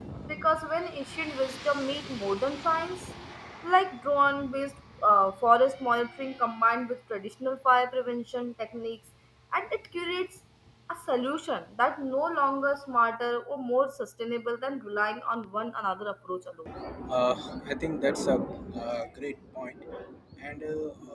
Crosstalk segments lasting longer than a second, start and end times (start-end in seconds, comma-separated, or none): none